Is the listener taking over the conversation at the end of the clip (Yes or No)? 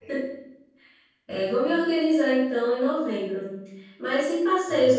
No